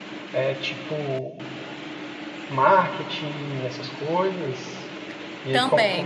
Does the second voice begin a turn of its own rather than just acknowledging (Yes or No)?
Yes